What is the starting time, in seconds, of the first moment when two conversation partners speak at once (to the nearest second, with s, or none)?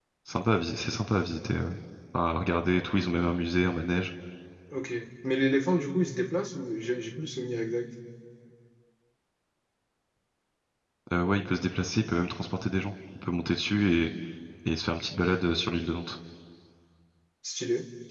none